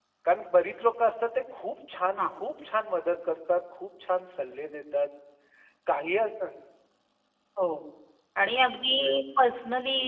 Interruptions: none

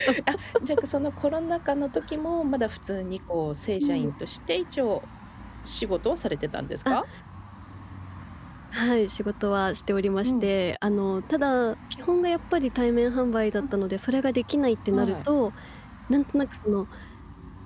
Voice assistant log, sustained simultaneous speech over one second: none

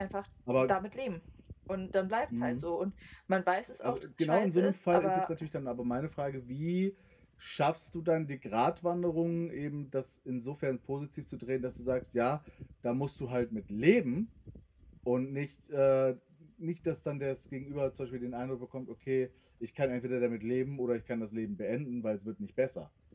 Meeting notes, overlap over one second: present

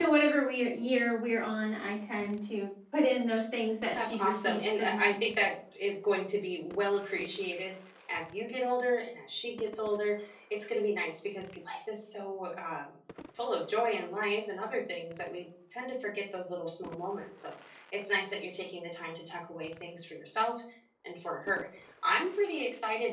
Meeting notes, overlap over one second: present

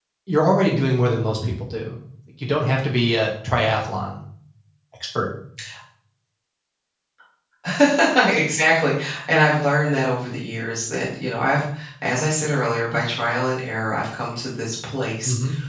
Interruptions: none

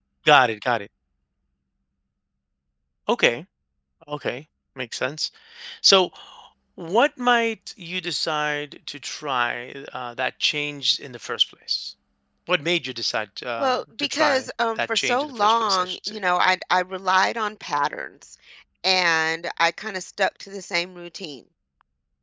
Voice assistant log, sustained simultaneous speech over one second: present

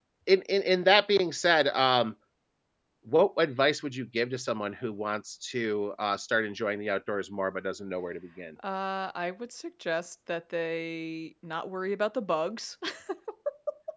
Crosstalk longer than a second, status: none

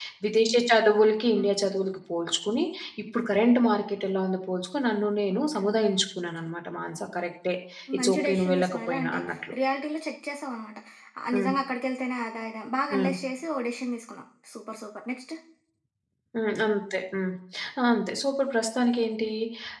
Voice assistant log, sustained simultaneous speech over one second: present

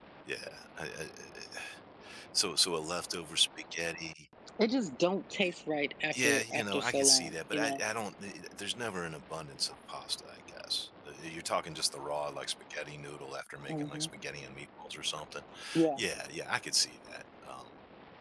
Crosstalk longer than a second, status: present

